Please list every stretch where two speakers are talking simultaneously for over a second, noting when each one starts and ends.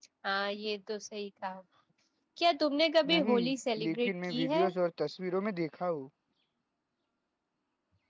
3.1-4.7

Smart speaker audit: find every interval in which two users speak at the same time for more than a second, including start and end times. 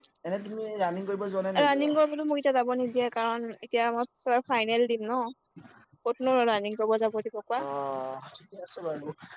none

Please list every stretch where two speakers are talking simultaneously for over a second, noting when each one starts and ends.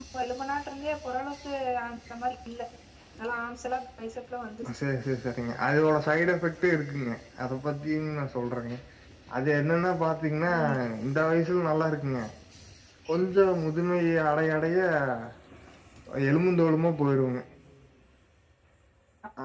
none

